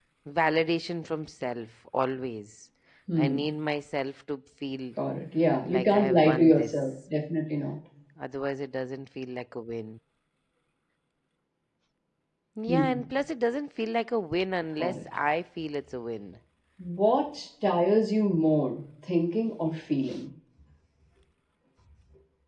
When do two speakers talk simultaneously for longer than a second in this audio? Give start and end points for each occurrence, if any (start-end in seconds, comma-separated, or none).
5.7-6.9